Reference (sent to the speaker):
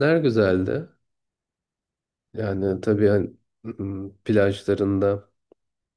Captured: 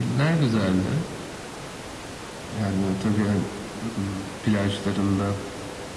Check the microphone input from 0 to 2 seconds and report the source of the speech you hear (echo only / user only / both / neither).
echo only